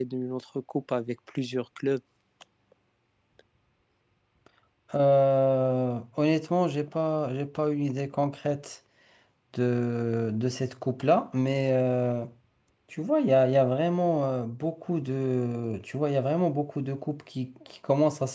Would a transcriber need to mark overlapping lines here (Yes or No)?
No